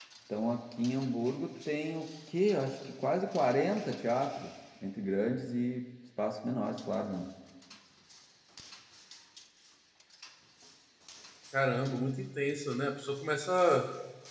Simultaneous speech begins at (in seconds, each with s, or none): none